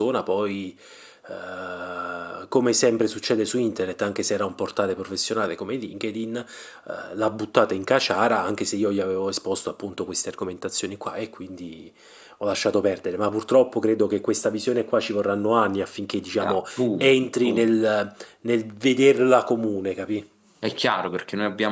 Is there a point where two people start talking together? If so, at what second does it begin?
16.4 s

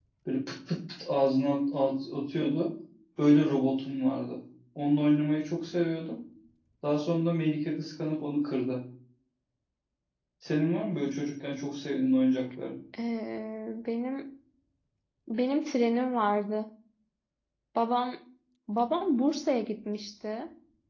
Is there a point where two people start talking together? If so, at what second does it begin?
none

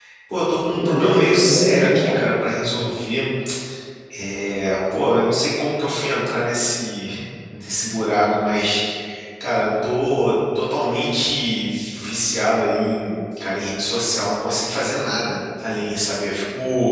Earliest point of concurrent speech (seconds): 0.8 s

